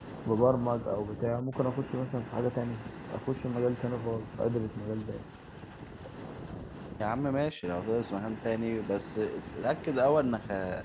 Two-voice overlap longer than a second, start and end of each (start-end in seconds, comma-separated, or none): none